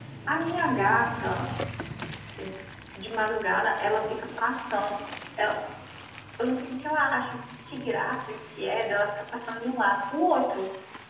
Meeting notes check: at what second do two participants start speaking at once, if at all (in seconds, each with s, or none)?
none